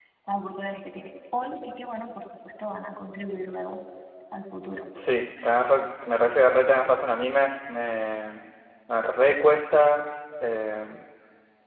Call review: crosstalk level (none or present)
none